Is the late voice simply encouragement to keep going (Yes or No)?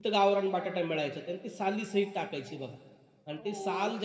Yes